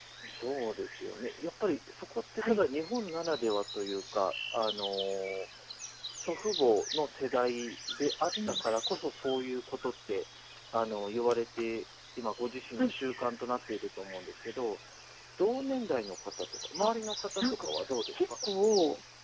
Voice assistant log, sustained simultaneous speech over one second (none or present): none